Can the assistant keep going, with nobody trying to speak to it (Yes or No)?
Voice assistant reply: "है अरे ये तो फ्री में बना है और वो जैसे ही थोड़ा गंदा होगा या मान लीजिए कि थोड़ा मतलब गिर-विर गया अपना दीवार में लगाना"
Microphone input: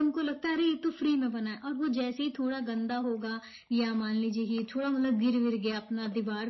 Yes